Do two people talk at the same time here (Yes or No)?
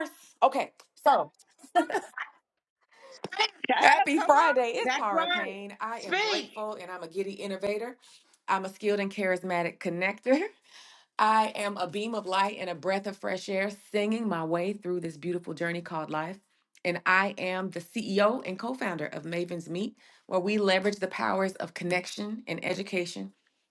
Yes